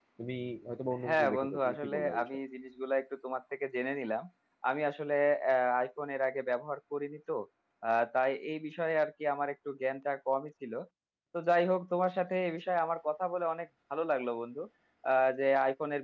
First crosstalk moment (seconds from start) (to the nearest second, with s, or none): 1 s